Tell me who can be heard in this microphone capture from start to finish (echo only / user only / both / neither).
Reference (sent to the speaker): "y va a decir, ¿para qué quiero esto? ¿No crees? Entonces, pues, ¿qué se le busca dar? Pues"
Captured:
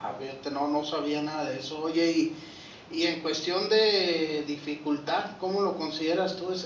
user only